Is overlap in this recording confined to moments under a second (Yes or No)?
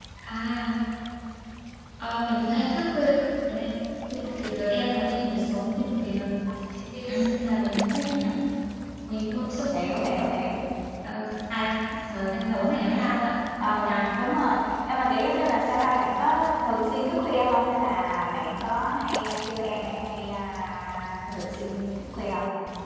Yes